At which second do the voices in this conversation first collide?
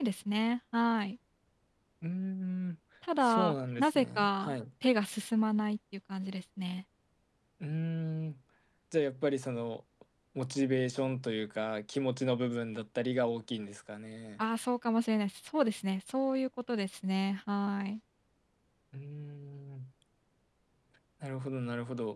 3 s

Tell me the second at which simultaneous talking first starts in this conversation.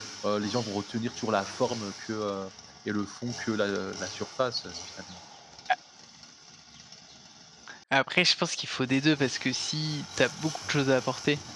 none

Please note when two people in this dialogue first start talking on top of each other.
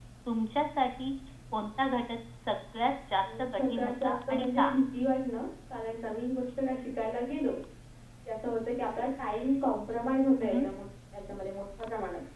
3 s

